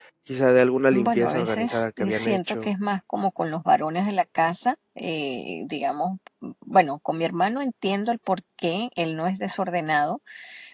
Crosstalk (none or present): present